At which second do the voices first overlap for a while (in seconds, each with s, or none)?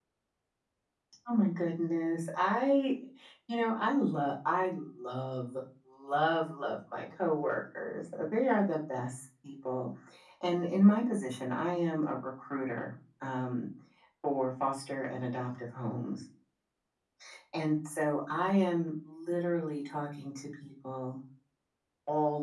none